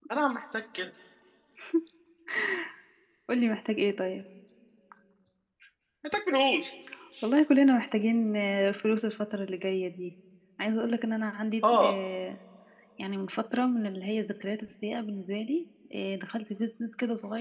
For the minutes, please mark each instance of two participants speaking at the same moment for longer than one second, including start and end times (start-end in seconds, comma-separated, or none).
none